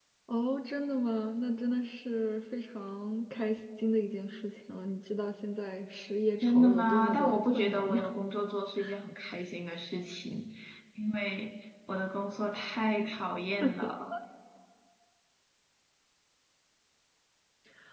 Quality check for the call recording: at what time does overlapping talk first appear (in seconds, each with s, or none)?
6.4 s